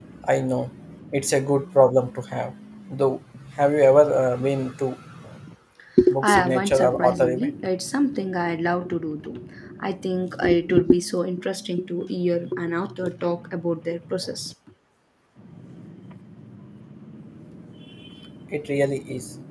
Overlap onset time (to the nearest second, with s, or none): 6 s